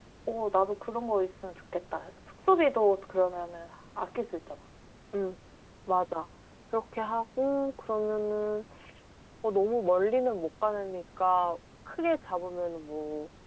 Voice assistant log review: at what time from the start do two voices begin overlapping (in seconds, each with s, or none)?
none